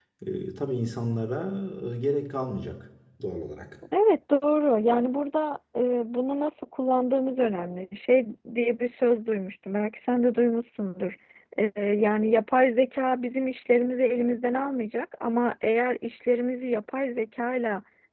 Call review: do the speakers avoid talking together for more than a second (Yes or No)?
Yes